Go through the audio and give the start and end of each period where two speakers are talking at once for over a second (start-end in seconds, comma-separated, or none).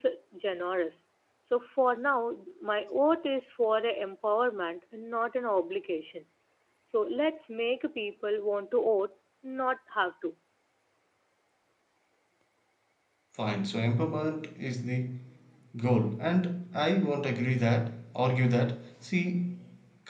none